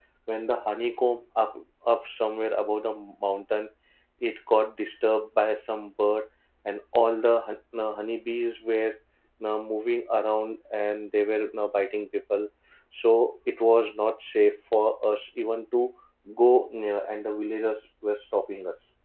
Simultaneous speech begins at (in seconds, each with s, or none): none